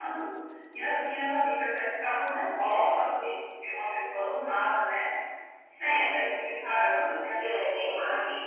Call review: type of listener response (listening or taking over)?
taking over